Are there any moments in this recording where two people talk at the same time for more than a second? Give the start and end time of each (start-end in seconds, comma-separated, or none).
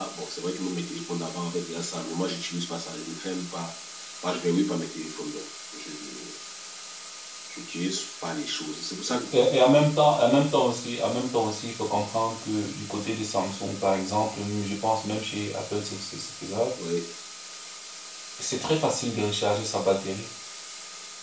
none